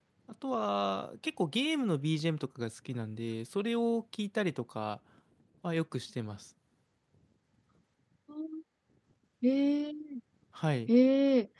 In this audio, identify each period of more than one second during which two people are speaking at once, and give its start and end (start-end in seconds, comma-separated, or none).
none